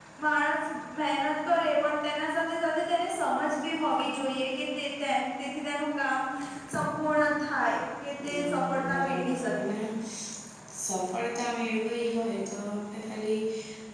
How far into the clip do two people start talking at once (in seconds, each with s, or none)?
8.3 s